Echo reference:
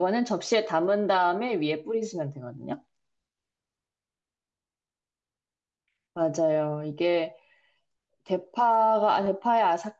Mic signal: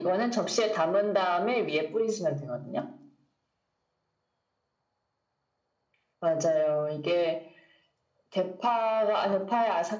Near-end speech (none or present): none